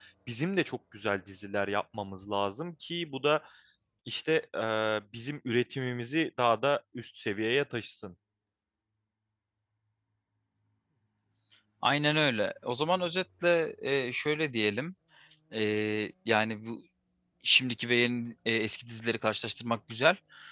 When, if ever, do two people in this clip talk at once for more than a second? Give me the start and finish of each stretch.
none

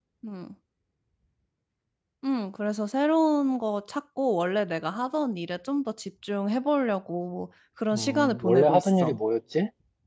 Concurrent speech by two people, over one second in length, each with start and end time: 7.9-9.2

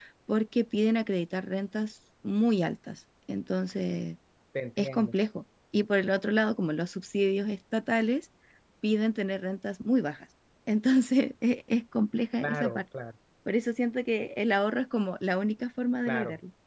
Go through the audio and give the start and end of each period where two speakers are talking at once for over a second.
none

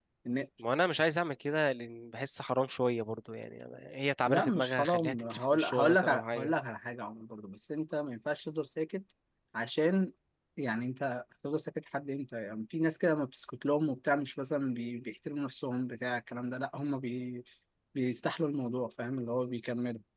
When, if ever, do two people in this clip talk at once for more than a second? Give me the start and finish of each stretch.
4.2-6.5

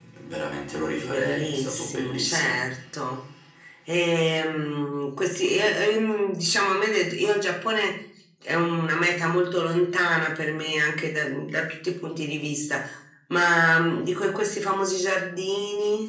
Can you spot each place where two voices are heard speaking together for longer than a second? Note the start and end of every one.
1.0-2.6

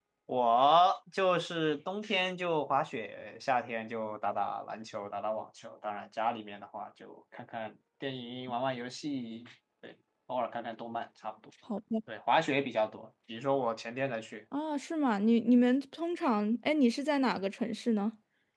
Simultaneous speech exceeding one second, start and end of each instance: none

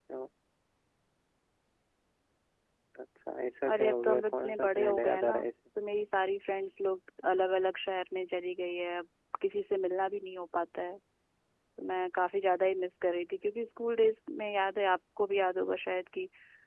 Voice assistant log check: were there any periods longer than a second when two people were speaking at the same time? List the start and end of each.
3.6-5.4

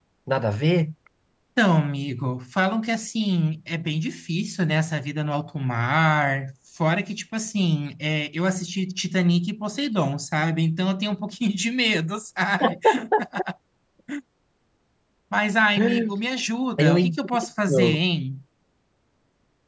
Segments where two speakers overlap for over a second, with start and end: 16.8-18.0

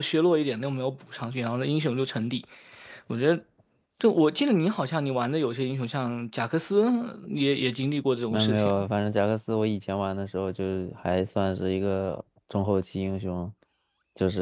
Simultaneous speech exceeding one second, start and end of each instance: none

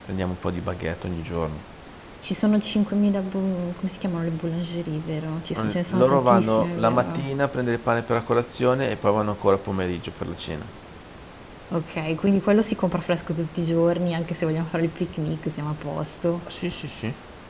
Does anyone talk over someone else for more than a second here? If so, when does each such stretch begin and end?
5.6-7.3

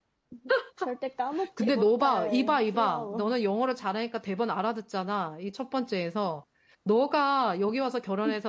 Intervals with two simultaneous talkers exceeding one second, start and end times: 1.6-3.4

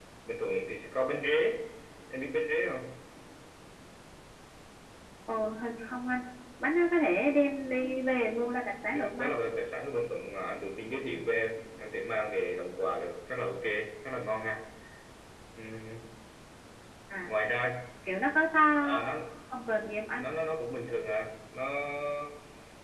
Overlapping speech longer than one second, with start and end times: none

